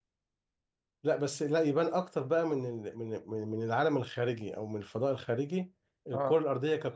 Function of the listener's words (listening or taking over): listening